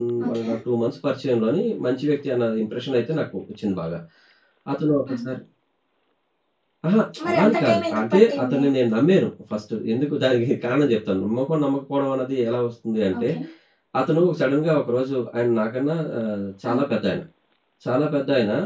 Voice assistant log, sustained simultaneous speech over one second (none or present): present